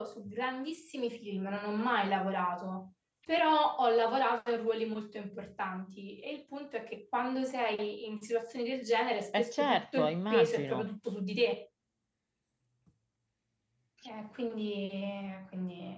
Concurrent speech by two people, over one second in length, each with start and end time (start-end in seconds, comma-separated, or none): 9.3-10.9